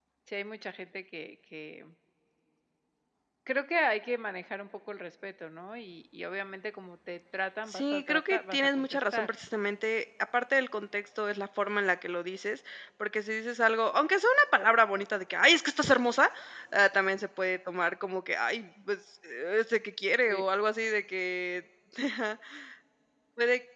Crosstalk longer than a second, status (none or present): present